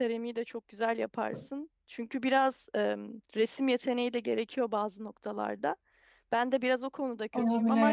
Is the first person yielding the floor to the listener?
No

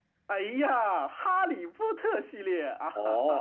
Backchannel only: No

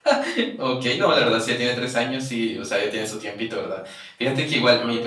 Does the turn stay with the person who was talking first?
Yes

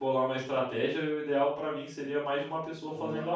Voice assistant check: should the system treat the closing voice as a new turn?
Yes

